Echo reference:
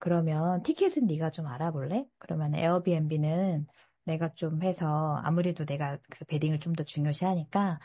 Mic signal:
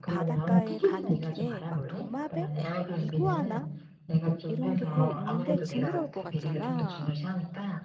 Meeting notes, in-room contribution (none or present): present